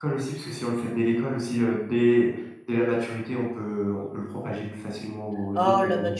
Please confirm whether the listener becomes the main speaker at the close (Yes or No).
Yes